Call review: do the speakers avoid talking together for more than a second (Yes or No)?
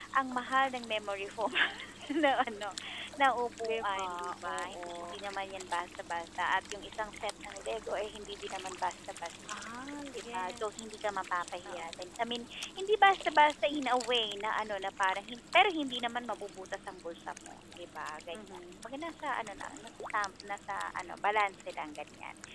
No